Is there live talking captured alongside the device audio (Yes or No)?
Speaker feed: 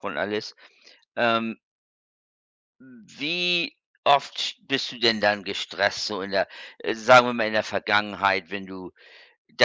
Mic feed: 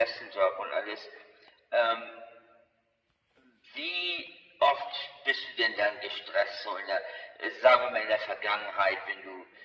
No